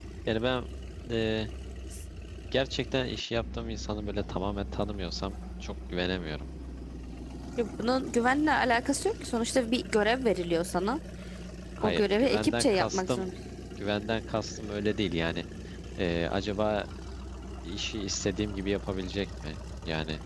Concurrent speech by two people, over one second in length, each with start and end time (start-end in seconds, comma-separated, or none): 11.8-13.3